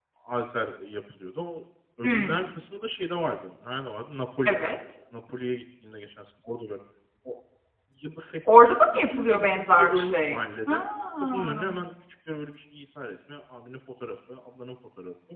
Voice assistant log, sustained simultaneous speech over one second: present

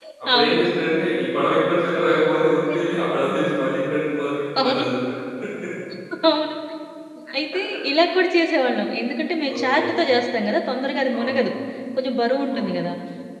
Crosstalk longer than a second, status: none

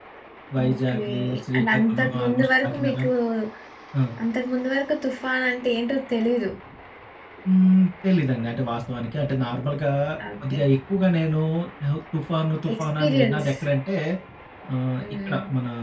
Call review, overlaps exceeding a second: present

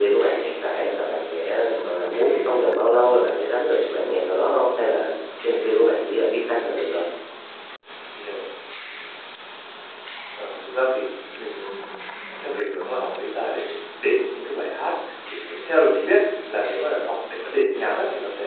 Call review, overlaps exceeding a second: none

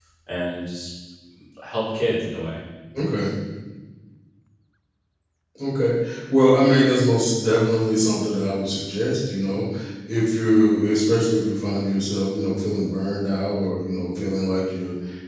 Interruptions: none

